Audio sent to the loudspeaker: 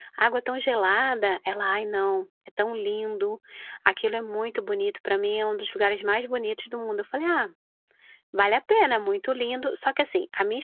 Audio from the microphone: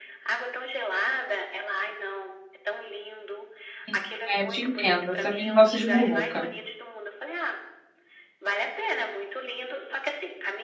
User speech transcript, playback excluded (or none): também, é, te entendo, eu também não gosto de muvuca.